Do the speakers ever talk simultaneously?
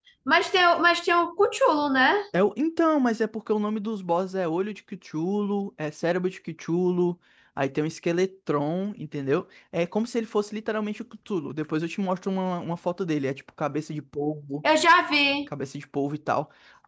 No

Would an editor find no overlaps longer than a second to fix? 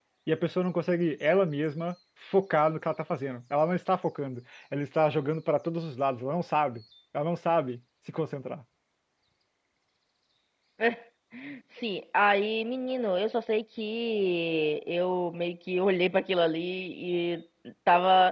Yes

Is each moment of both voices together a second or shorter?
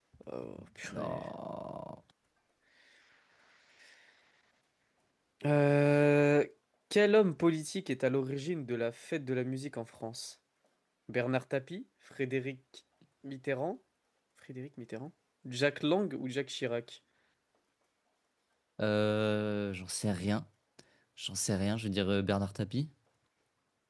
Yes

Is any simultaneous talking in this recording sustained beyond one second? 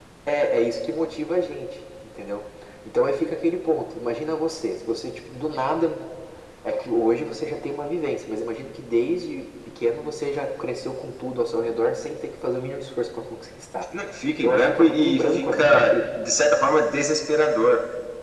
Yes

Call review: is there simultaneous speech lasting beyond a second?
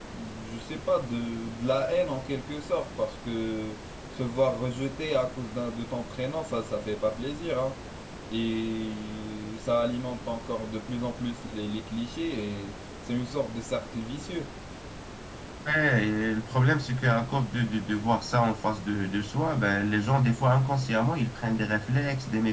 No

